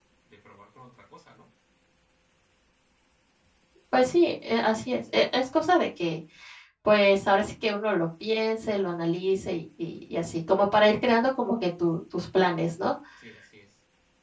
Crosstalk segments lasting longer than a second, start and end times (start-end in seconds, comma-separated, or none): none